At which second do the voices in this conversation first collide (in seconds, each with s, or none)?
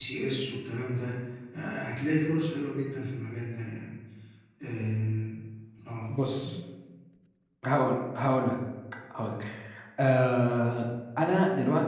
none